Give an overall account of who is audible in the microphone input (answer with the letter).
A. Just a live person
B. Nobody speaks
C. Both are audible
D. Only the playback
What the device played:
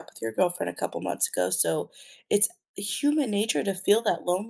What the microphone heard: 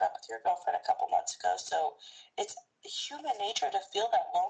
D